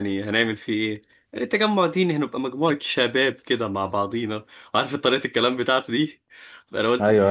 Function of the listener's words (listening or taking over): listening